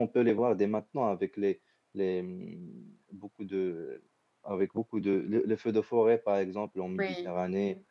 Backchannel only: Yes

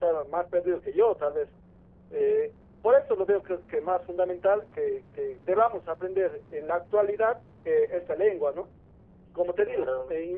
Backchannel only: Yes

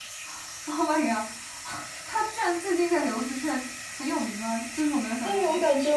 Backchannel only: No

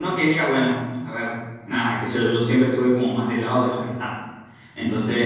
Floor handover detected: No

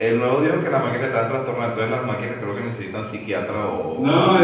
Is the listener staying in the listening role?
No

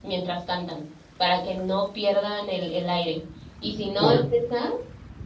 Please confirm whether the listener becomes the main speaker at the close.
No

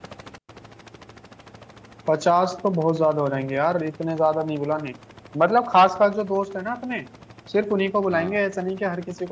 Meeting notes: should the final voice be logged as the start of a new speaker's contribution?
No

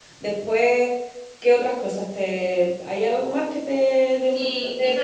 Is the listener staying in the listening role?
No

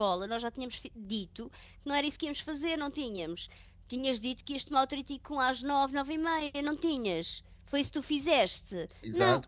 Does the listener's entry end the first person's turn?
Yes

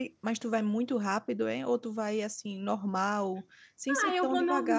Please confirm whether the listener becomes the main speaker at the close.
Yes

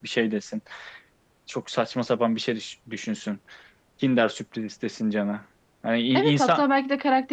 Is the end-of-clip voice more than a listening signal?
Yes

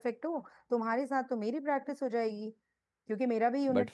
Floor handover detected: No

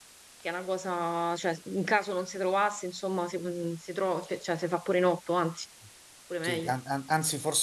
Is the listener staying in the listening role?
No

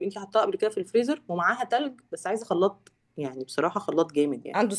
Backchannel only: Yes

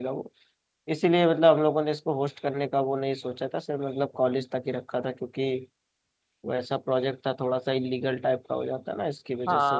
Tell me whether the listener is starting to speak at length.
Yes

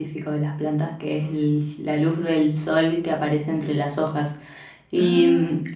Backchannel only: Yes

